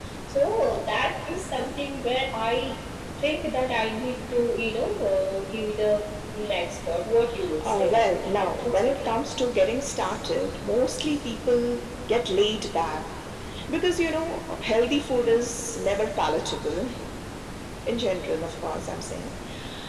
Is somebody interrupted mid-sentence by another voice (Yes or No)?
Yes